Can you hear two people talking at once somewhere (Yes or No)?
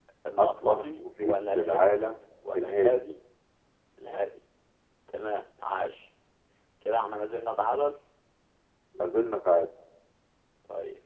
Yes